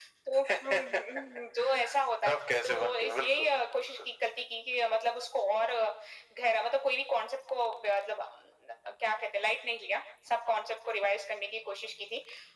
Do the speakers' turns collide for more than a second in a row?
Yes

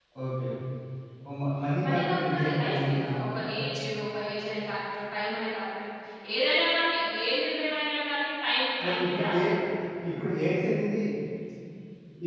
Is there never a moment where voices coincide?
No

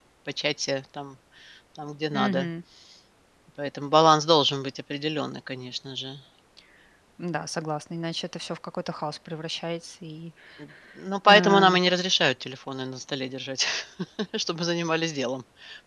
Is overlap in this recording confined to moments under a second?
Yes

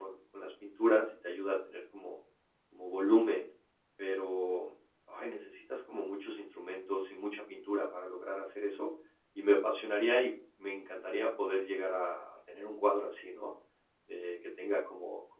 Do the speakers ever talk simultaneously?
No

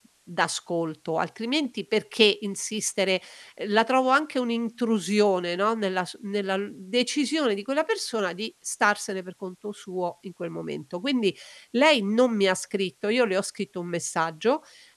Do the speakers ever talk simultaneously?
No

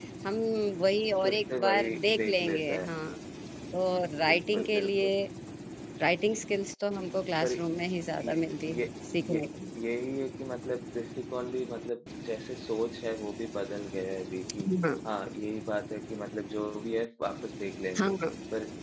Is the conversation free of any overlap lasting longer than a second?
No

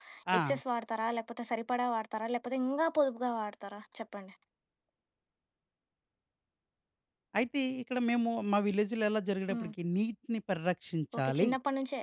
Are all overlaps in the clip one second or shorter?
Yes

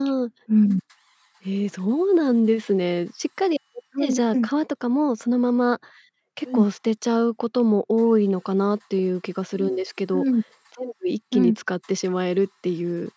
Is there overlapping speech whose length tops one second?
No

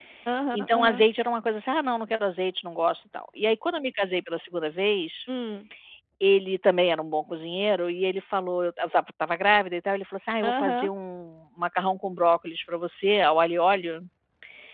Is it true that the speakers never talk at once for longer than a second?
Yes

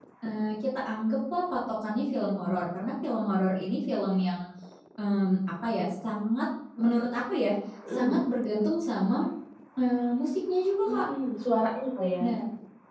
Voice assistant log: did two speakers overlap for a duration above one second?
No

